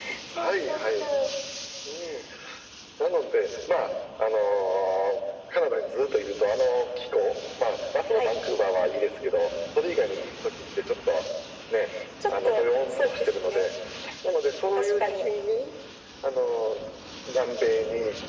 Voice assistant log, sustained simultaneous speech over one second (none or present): present